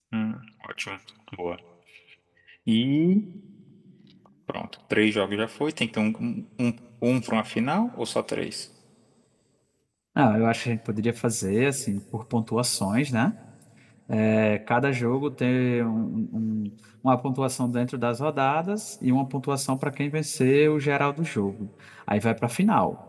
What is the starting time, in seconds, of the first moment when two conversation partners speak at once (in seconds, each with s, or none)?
none